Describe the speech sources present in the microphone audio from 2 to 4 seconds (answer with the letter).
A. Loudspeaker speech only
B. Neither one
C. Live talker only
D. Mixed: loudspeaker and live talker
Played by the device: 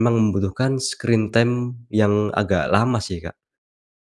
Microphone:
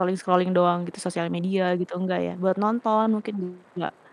C